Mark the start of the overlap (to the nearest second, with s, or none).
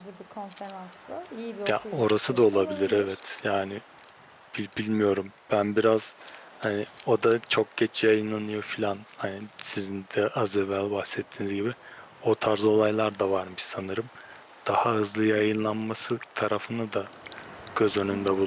2 s